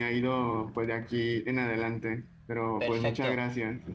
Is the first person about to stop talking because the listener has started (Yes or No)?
Yes